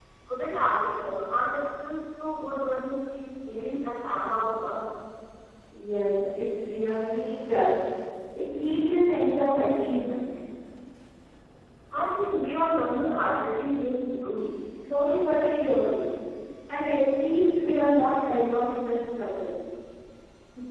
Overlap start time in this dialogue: none

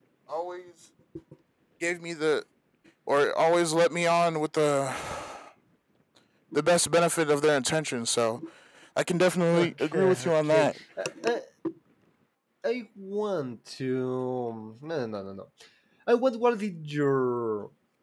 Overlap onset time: 10 s

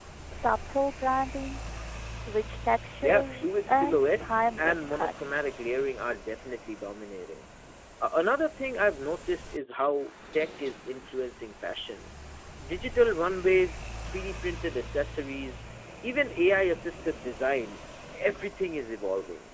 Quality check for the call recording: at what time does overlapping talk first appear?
3 s

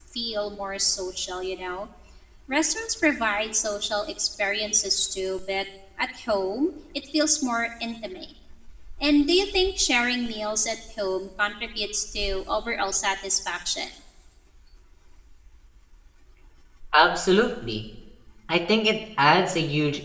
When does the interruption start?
none

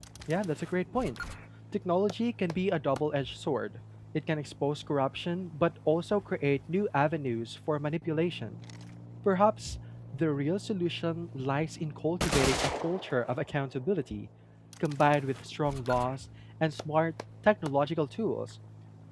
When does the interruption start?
none

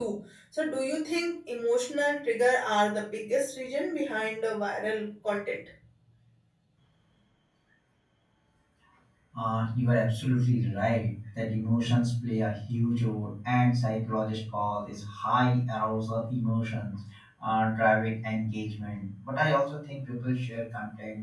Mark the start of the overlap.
none

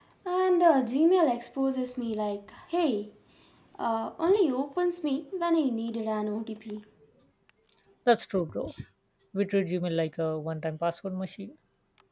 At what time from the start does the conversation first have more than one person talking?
none

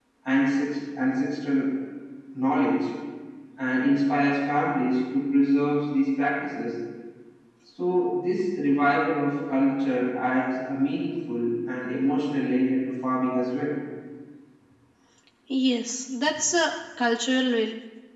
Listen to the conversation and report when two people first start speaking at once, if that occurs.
none

